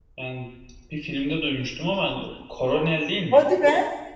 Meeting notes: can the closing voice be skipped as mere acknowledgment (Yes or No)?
Yes